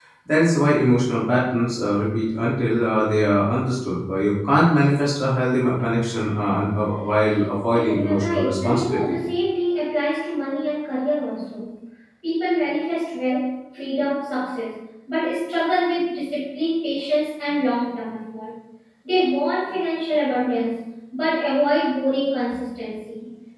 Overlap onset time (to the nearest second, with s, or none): 8 s